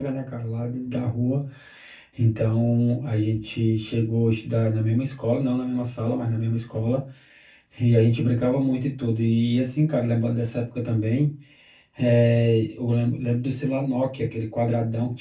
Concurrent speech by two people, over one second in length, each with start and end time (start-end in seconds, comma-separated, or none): none